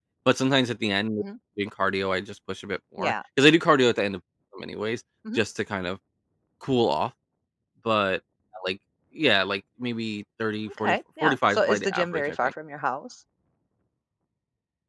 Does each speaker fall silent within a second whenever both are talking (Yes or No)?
No